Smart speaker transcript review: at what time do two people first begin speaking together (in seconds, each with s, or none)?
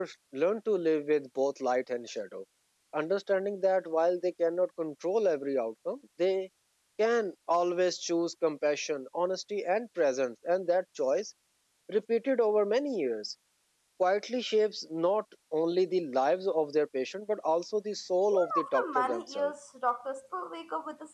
18.3 s